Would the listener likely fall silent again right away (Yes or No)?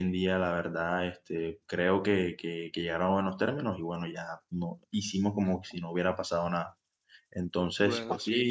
Yes